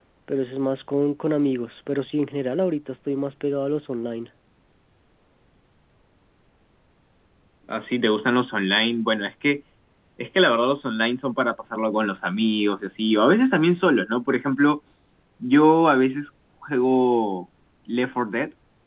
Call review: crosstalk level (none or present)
none